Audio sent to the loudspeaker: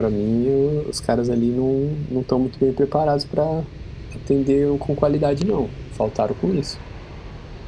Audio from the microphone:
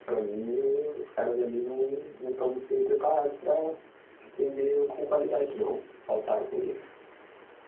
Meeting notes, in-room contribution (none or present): none